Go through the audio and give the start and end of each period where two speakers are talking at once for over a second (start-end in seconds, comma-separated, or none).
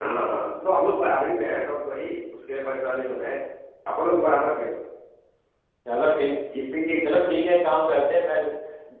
none